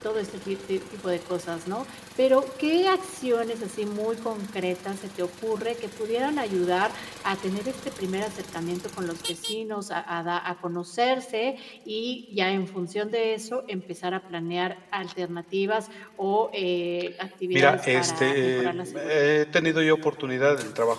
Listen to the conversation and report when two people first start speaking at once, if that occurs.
17.5 s

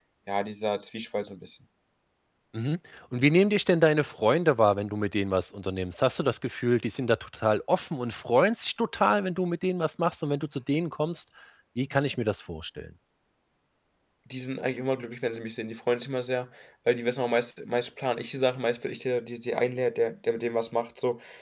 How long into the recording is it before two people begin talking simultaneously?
none

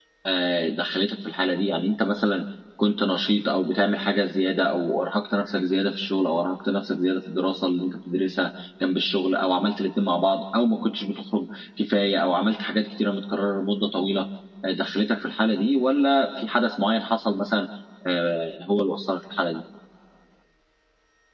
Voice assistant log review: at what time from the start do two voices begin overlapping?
none

